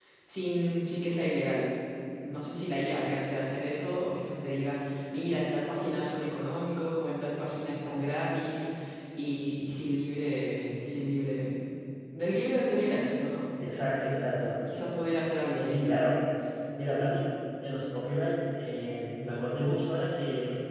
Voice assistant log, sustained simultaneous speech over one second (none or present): none